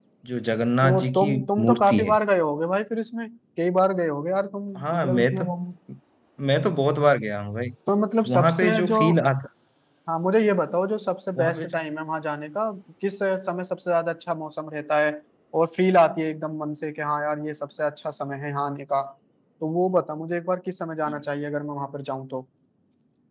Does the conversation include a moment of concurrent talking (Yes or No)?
Yes